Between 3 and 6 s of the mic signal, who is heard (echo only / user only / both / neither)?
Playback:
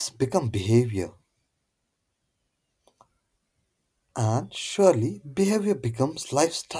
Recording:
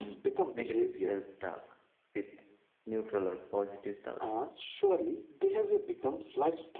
both